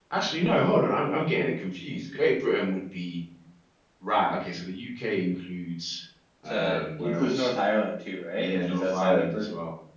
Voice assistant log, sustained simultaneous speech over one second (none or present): present